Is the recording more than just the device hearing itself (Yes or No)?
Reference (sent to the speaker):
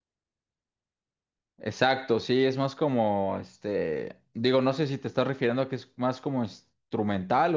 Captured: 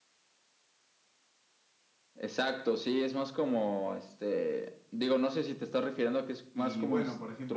Yes